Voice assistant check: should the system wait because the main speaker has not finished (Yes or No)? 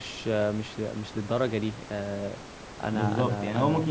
No